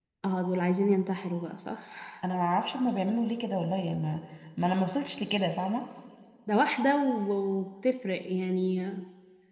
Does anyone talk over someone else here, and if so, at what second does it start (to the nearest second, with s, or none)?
none